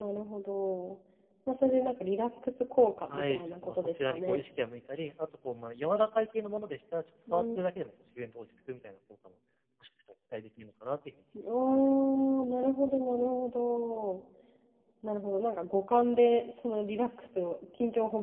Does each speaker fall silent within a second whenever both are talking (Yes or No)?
No